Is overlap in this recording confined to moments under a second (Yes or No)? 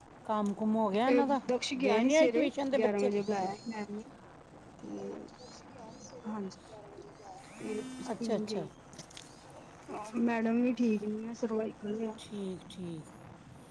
No